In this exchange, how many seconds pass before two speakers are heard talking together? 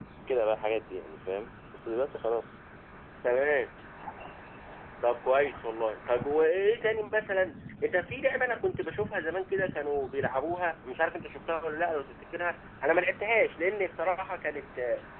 none

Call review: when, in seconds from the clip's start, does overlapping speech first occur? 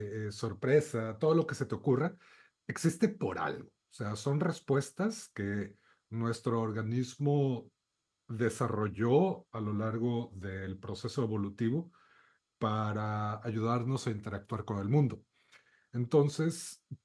none

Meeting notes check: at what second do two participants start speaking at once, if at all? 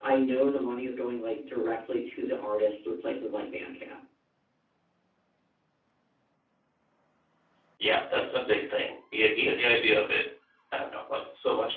none

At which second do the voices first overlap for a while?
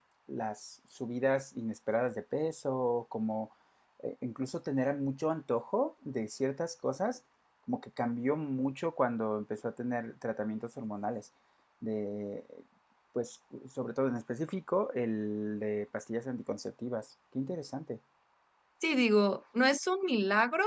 none

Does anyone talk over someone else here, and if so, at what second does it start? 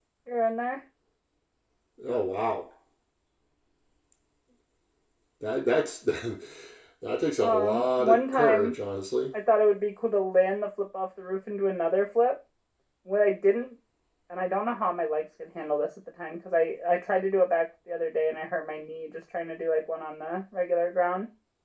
7.4 s

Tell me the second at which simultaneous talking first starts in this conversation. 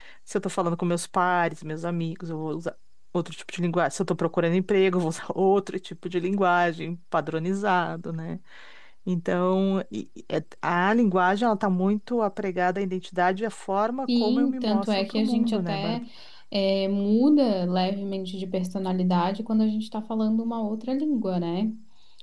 14.1 s

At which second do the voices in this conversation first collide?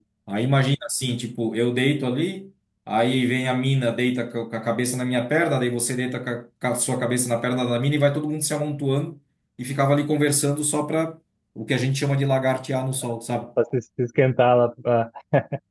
none

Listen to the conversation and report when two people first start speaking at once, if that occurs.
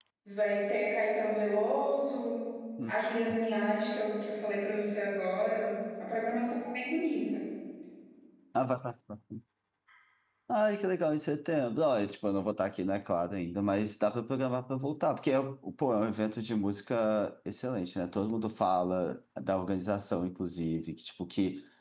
none

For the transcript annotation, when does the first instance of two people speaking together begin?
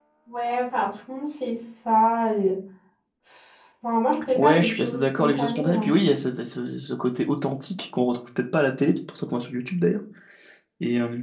4.3 s

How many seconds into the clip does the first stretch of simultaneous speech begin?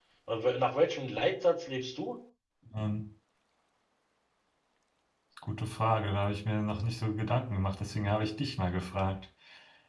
none

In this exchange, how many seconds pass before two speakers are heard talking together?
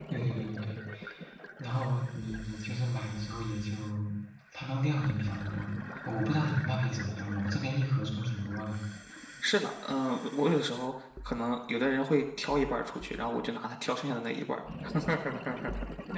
none

